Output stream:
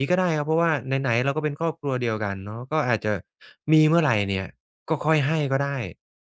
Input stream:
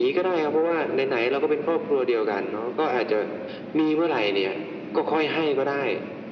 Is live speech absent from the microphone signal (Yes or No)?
Yes